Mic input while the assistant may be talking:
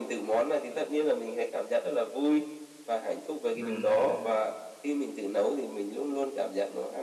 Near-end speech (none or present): present